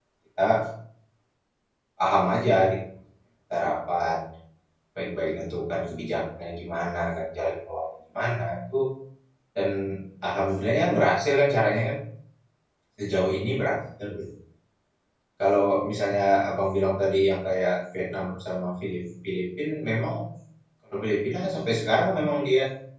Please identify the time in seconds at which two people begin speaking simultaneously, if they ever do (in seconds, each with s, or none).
none